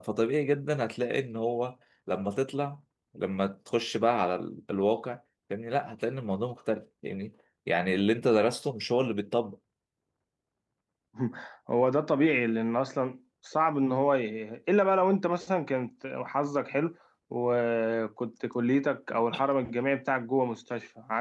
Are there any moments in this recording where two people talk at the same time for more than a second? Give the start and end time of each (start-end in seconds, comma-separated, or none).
none